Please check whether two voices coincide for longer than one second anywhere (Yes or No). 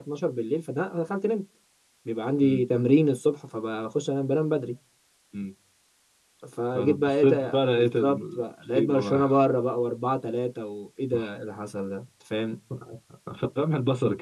Yes